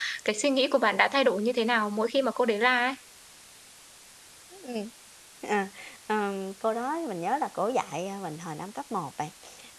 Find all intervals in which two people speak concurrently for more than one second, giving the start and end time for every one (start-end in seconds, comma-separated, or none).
none